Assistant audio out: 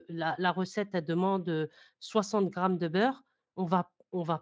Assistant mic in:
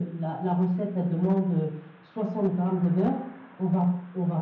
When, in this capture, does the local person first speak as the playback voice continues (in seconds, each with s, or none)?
none